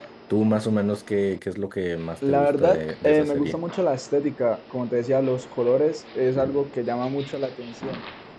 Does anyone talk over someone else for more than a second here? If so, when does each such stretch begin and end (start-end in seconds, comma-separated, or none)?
2.3-3.6